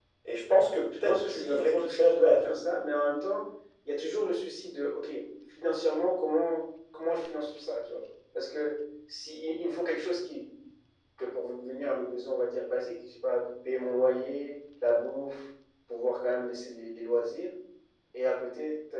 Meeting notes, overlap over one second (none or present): present